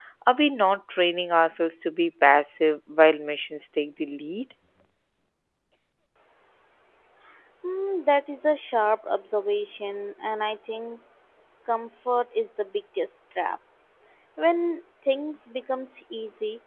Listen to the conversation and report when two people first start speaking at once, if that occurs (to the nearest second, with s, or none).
none